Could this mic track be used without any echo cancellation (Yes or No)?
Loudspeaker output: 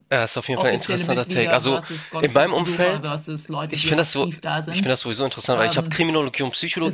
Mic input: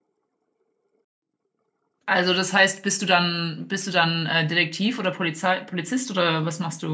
Yes